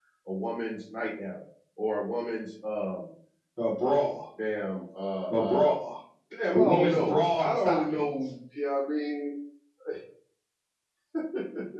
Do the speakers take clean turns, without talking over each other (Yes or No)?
No